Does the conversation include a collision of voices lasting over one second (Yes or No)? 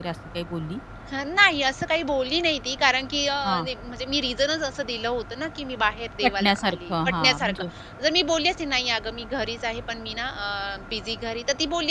Yes